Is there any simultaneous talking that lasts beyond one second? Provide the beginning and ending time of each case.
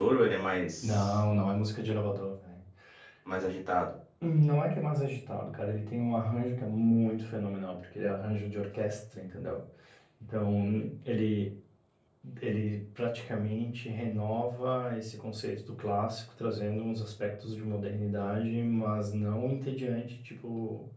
none

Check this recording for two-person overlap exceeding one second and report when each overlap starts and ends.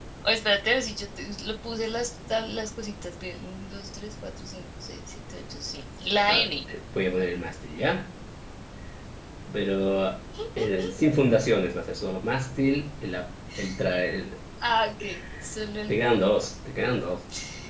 none

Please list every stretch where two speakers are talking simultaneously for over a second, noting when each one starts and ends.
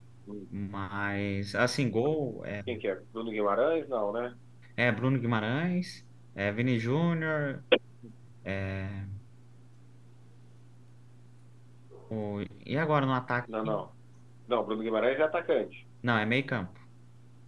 none

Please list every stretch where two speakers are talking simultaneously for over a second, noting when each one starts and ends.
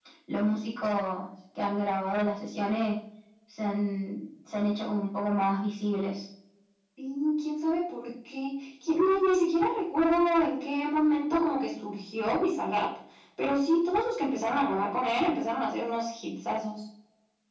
none

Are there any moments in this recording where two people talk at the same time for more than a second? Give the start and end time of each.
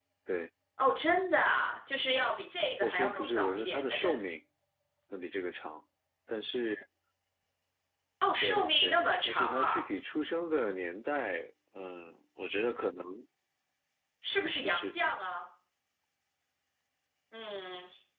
2.8-4.2, 8.4-9.8

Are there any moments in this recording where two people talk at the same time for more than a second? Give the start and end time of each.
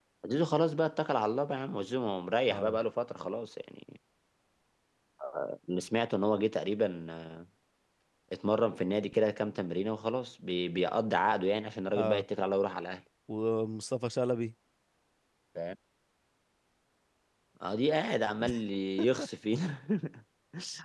none

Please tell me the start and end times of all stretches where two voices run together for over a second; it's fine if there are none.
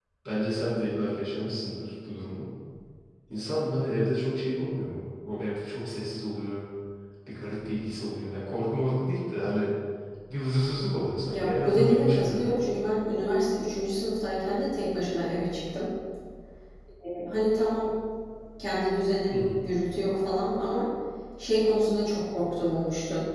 11.3-12.5

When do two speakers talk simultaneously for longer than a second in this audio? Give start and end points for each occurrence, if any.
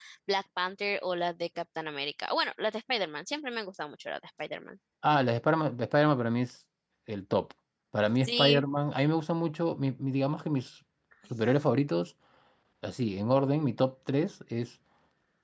none

